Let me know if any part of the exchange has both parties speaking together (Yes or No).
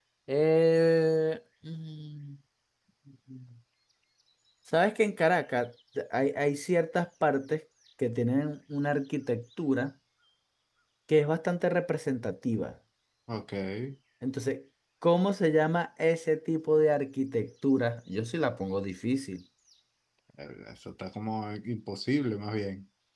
No